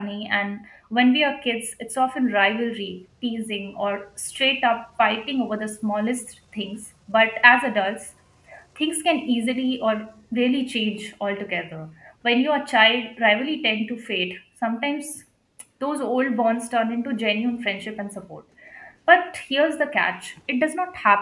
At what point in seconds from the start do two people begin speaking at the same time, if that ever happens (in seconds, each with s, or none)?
none